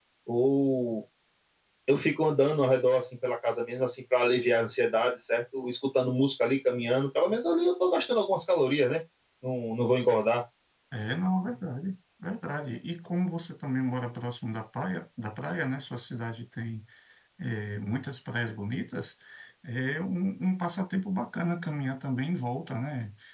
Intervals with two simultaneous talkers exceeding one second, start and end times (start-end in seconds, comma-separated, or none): none